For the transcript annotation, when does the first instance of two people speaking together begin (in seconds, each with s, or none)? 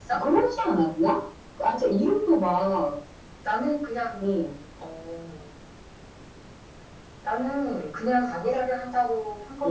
none